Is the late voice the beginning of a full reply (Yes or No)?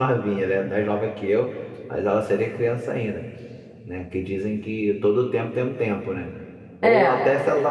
No